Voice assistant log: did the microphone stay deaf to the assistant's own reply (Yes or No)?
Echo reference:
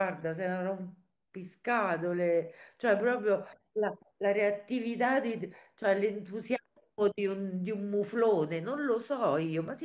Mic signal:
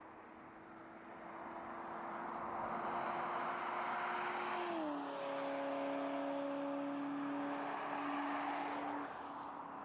Yes